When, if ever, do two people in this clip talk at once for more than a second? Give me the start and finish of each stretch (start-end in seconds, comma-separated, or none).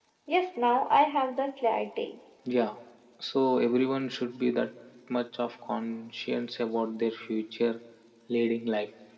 none